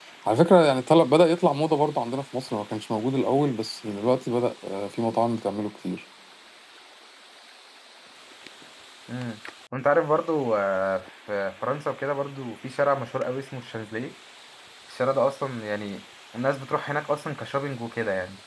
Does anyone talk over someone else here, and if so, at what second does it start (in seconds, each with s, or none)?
none